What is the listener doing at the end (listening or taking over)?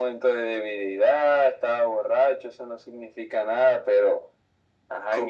taking over